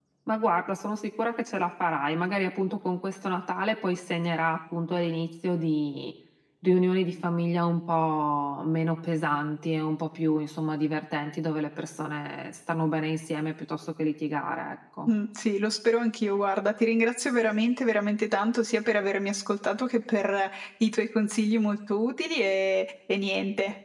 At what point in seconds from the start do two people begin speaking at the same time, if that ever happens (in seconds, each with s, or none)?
none